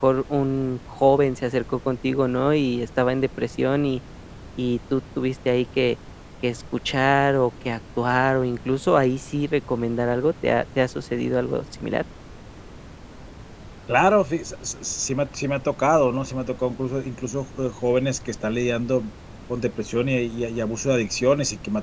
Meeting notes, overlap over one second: none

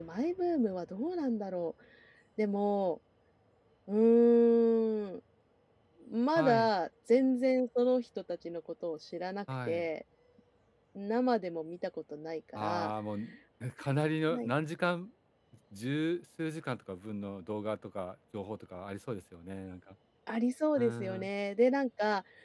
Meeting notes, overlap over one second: none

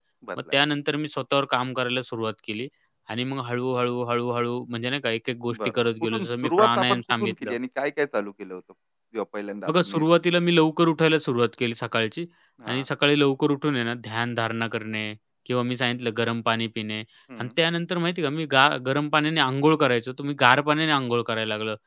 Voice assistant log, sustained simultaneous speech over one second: present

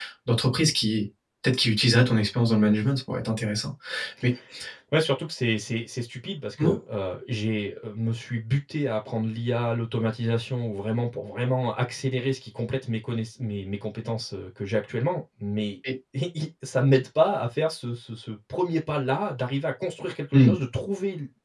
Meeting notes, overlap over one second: none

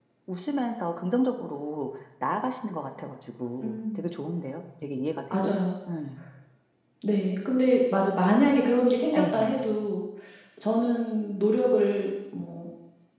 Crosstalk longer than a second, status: none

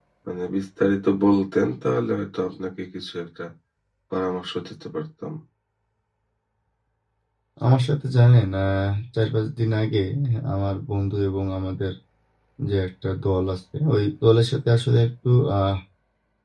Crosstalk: none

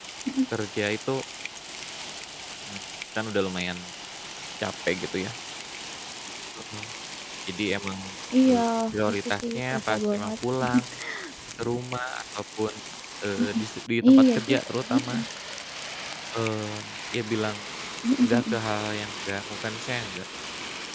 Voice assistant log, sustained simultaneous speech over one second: present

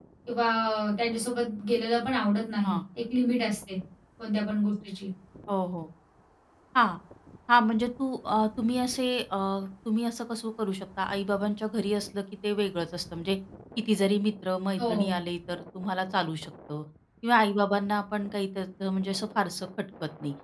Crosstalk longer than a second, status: none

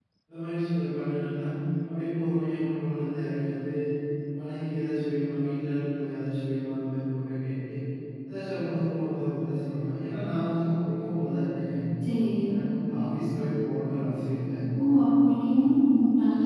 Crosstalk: none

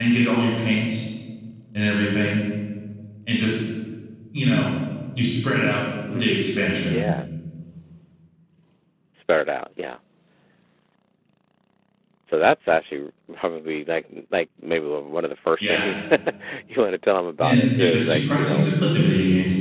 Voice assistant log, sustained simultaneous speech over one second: present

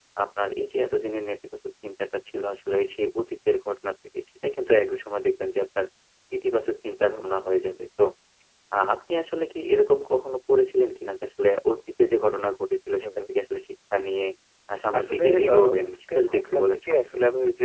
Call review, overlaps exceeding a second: present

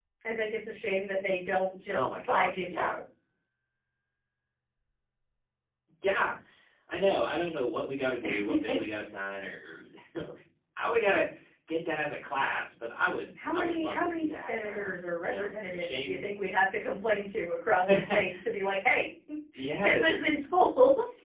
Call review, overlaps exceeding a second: present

